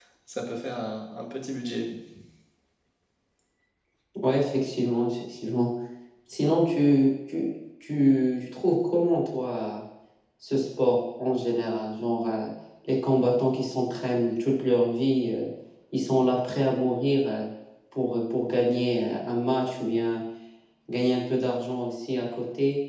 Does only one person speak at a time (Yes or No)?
Yes